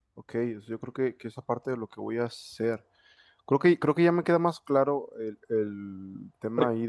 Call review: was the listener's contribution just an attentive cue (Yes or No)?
Yes